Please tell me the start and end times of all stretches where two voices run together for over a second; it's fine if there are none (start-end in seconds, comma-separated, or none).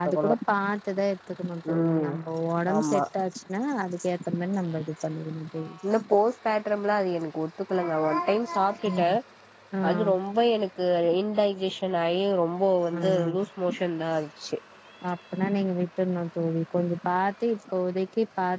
none